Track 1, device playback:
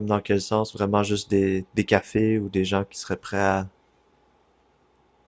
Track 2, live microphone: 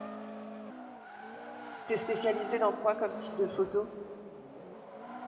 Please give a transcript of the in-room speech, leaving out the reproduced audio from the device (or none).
t'es spécialisé dans quoi comme type de photo?